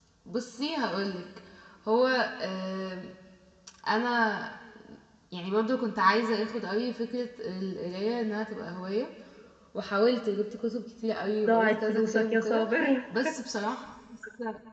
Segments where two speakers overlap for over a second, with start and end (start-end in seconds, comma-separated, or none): 11.5-12.7